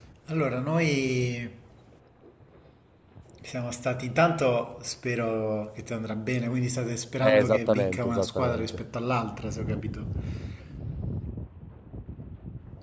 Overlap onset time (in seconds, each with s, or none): 7.2 s